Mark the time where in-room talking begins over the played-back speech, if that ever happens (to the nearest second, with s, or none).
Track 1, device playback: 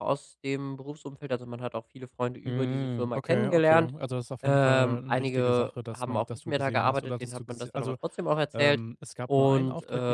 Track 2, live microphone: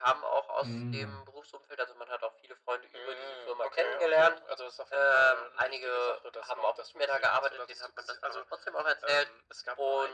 1 s